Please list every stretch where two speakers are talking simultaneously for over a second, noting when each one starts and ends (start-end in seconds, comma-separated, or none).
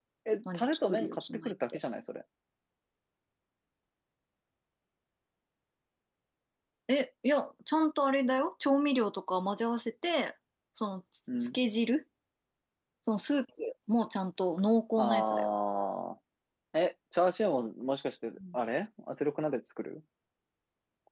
0.5-1.8